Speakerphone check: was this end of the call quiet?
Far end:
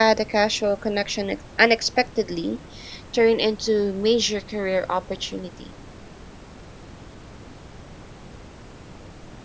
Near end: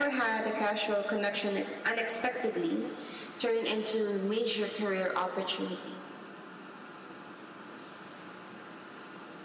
Yes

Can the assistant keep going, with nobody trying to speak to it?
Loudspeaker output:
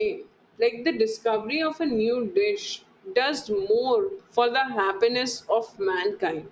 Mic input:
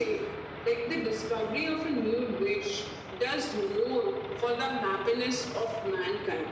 Yes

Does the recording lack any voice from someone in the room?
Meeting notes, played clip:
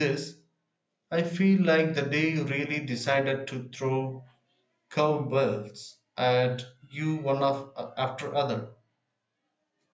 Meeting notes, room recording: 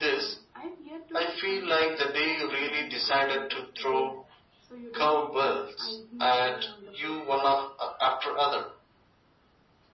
No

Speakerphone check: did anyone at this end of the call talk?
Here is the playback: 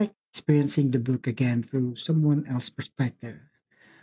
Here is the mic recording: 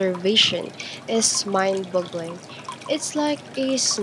Yes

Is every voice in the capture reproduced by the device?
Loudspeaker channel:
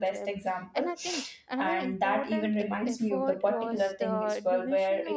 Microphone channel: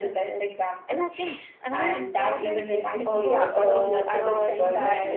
No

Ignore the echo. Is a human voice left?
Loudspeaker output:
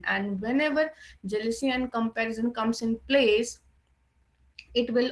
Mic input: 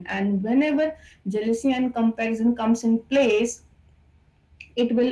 No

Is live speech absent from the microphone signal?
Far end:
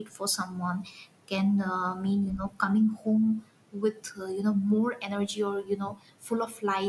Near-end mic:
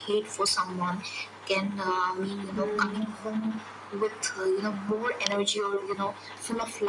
No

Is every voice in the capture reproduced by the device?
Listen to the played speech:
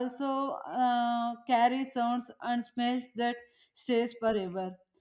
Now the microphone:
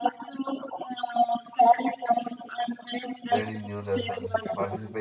No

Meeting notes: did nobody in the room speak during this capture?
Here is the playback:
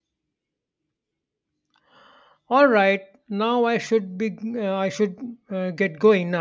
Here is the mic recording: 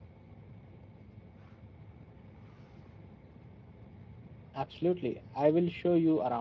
No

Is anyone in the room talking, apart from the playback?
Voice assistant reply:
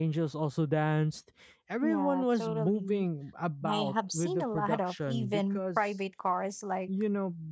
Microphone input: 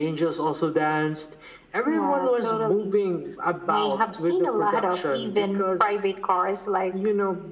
No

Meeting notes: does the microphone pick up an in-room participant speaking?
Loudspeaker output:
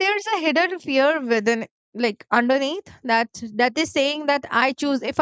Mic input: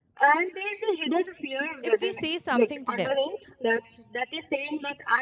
Yes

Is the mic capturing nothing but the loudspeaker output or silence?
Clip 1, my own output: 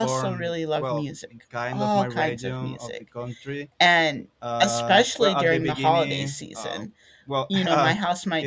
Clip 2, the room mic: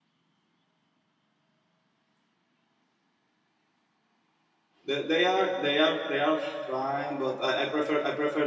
No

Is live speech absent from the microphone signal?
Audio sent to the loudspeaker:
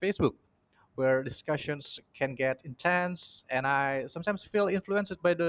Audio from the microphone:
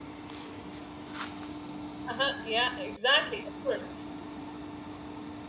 No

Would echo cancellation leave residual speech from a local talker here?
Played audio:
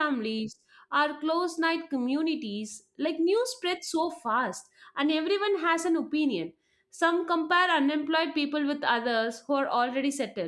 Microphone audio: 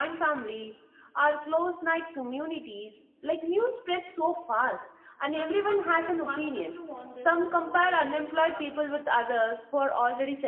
Yes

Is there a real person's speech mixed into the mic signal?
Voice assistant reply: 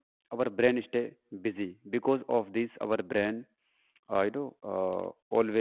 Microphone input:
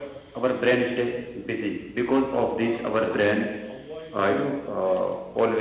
Yes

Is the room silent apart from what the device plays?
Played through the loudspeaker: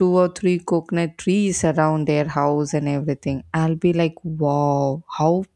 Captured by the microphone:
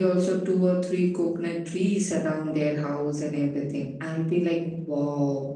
Yes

